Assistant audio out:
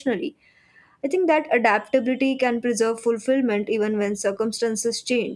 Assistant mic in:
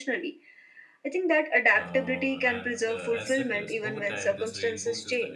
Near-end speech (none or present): present